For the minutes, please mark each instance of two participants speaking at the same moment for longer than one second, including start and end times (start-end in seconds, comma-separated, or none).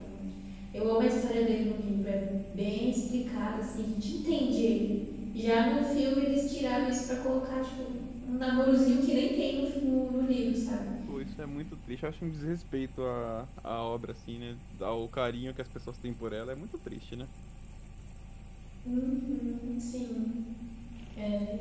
none